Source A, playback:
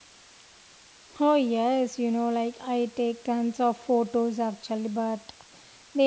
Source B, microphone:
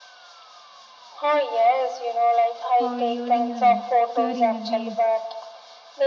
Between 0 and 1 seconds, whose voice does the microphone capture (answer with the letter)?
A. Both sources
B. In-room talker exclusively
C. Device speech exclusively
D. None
D